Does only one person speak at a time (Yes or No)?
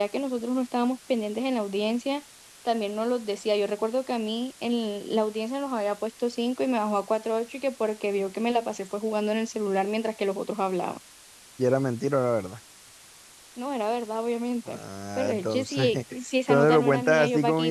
No